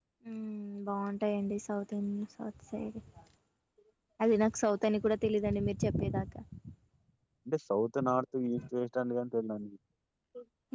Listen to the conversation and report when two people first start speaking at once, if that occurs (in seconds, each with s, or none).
none